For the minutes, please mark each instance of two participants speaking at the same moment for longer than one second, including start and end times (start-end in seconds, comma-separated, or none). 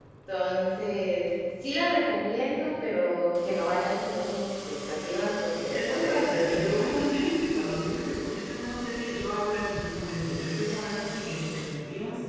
5.7-6.9